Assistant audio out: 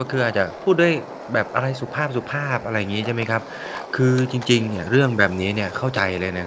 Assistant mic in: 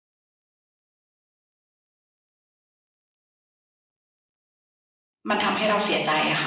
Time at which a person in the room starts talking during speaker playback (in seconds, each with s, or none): 5.3 s